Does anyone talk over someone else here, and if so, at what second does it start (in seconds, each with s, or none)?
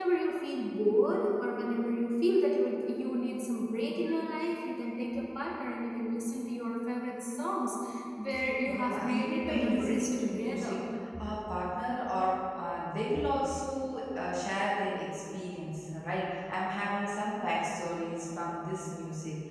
8.7 s